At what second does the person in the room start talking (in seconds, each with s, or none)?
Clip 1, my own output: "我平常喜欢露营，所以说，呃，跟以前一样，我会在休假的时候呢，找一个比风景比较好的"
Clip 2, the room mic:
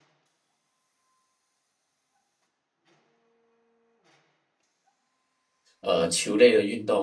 5.8 s